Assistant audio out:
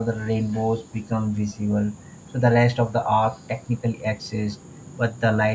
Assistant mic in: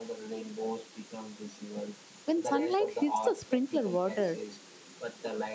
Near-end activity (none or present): present